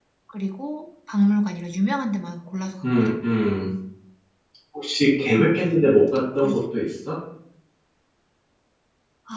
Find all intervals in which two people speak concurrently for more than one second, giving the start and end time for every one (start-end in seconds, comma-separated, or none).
none